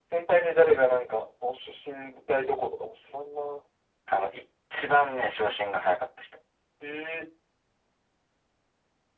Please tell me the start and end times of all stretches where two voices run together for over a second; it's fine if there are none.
none

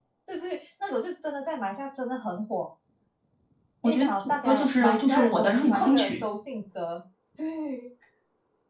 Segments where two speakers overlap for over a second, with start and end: 3.9-6.2

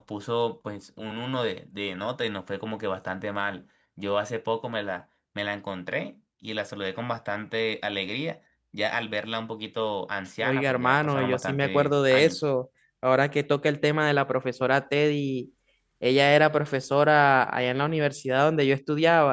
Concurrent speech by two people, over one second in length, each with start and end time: 10.4-12.4

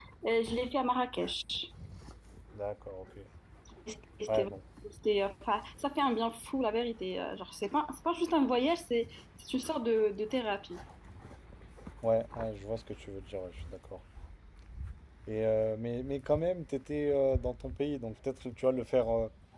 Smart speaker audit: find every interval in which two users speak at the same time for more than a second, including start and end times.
none

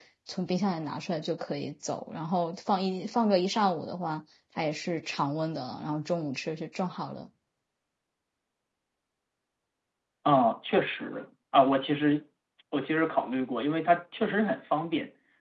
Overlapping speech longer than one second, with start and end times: none

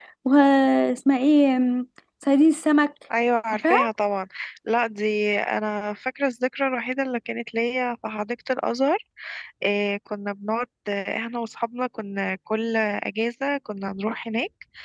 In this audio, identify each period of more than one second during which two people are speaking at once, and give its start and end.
none

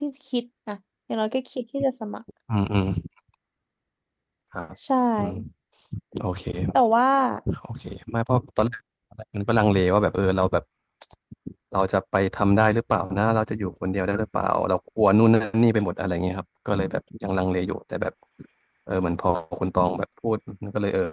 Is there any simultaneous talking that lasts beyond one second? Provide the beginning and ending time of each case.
none

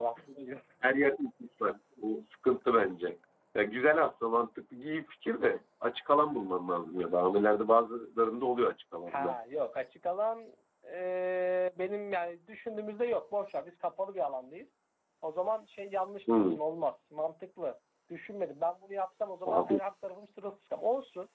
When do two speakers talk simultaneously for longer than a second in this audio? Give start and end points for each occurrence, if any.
none

